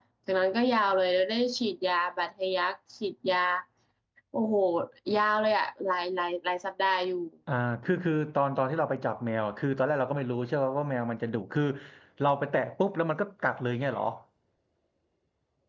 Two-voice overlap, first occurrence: none

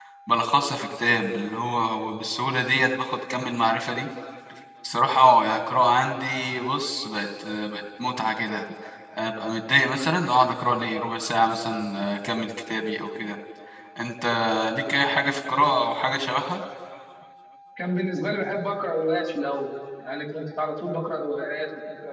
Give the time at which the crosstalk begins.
none

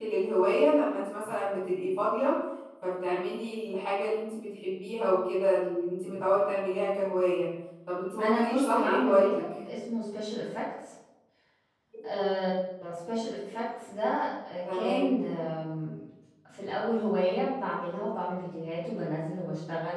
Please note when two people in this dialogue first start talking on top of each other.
8.2 s

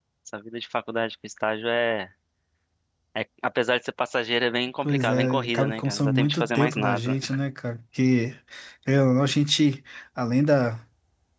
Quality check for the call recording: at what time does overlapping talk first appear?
4.8 s

